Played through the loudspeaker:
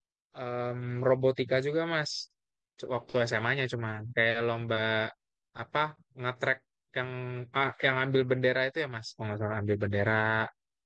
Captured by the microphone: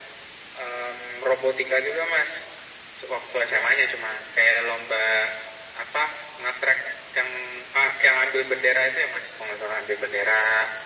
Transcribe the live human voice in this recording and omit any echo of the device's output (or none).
none